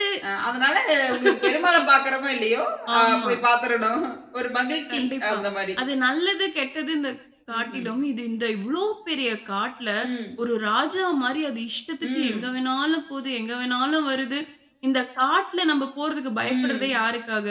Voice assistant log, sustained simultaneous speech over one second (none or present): none